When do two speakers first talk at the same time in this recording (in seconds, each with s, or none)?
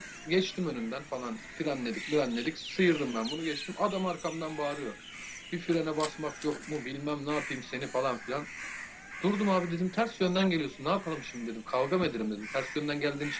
none